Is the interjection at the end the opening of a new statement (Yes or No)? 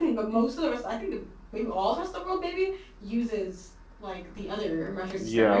Yes